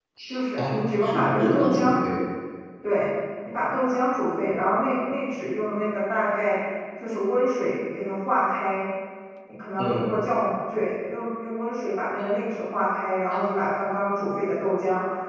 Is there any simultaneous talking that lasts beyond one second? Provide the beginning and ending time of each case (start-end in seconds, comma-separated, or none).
0.6-1.9